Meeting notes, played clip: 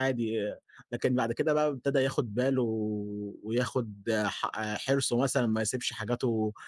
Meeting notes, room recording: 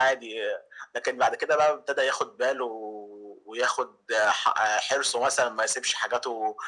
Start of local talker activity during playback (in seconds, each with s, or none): none